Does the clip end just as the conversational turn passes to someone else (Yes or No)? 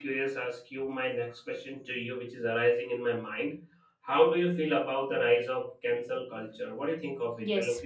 Yes